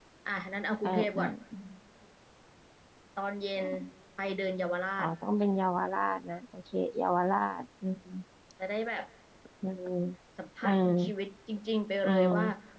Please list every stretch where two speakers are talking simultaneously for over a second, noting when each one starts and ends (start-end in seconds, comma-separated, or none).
none